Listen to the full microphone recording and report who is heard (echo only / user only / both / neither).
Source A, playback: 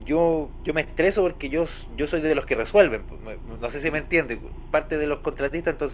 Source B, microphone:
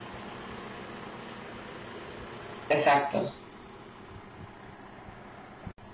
user only